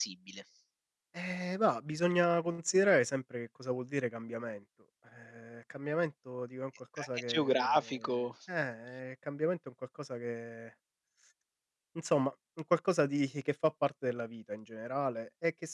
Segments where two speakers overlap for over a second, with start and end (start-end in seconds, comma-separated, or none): 7.0-8.3